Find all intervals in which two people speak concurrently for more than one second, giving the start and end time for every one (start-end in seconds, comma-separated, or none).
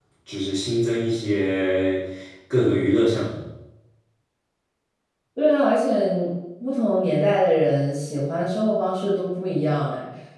none